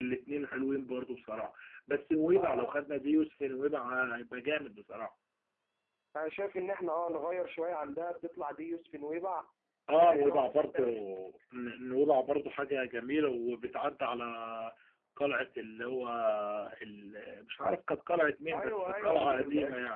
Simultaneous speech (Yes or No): Yes